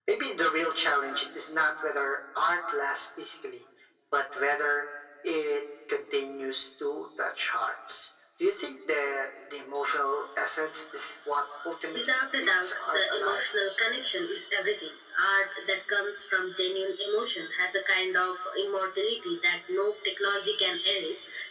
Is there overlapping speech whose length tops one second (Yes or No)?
Yes